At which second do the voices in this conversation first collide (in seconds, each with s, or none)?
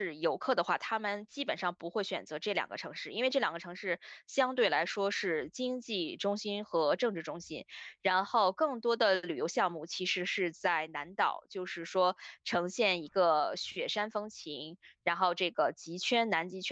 none